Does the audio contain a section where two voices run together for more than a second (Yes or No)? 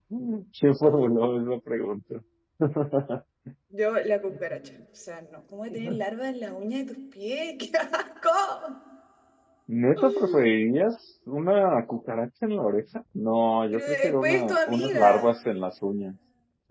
Yes